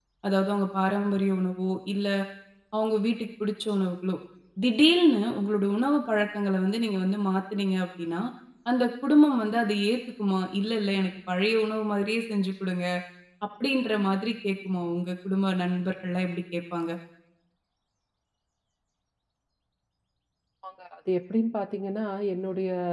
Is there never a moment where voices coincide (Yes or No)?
Yes